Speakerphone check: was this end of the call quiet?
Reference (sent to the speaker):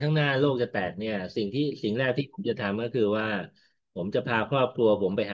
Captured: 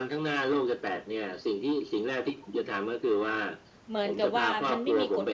No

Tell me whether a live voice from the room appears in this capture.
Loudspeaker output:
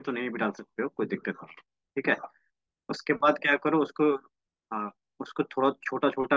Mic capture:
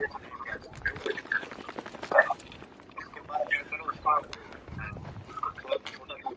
No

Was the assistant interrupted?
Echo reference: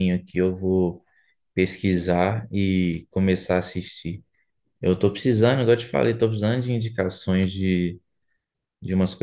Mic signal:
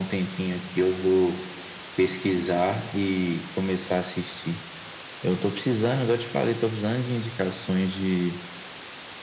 No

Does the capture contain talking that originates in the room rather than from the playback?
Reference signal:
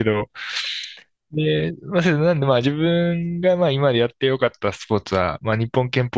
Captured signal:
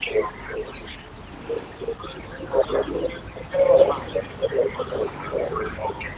No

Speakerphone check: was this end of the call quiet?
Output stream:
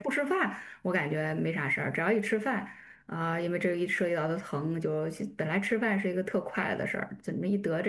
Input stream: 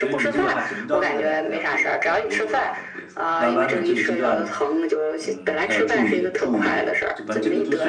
No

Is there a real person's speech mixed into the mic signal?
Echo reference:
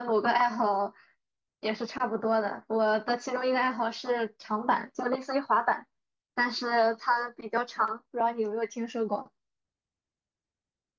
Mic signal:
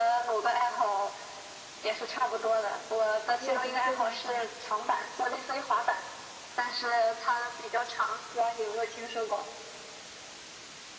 Yes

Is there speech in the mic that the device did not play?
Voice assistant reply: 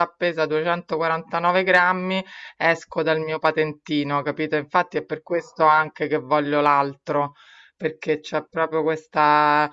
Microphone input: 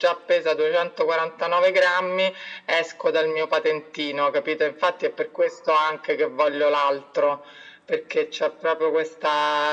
No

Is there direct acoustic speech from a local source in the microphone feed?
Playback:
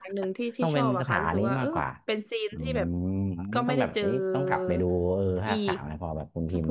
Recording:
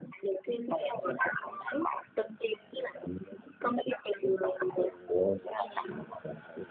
No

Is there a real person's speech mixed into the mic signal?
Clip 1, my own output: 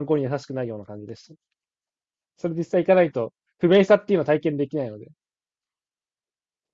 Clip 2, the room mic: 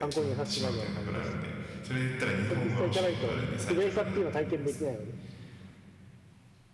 Yes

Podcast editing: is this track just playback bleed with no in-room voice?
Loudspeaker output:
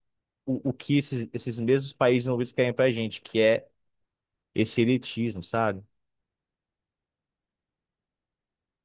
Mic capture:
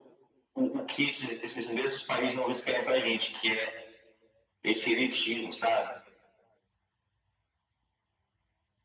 Yes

